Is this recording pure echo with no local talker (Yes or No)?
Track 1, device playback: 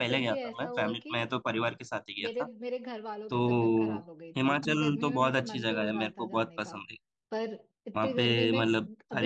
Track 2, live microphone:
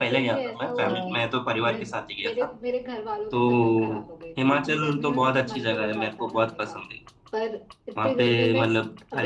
No